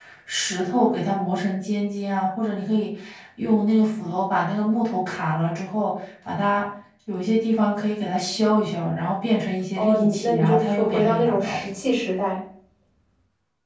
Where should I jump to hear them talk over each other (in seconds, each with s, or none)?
9.8 s